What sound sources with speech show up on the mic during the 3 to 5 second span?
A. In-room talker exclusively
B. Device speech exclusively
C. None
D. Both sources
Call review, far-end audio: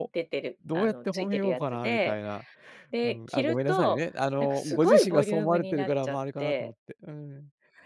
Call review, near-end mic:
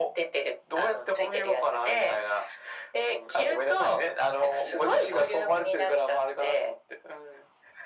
B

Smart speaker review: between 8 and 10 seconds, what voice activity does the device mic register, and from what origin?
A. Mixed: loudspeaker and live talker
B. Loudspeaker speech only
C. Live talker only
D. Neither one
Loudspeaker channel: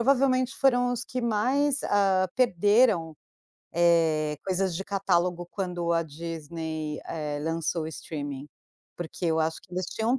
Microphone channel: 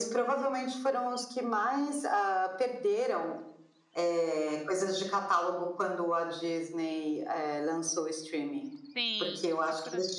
A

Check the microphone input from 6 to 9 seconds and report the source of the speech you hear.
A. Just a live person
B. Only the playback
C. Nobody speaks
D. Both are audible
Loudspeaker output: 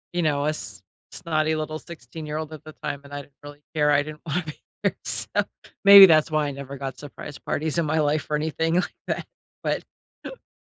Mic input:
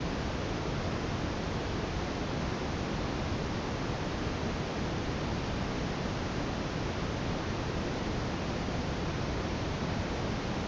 C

